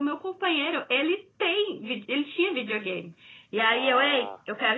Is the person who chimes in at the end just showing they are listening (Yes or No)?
Yes